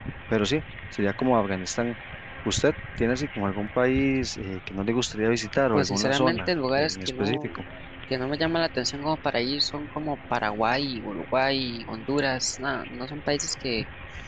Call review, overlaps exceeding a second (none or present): present